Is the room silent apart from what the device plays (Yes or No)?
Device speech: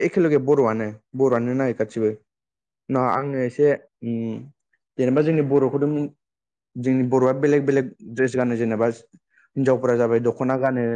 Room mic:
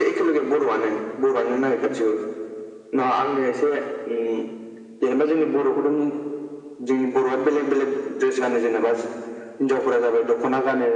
Yes